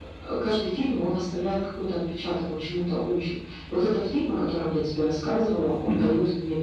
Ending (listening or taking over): listening